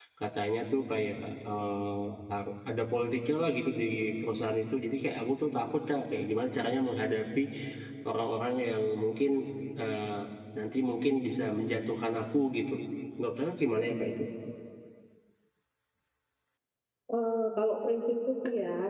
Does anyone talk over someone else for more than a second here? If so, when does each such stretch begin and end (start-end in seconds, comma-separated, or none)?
none